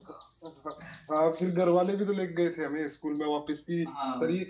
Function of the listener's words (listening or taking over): listening